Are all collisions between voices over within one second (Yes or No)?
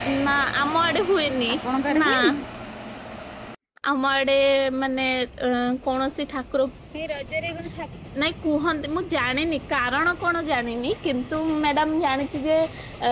Yes